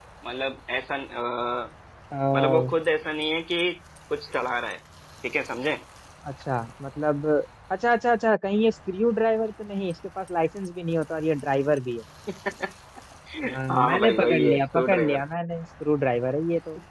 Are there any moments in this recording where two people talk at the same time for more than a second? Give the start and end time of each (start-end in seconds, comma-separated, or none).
13.7-15.2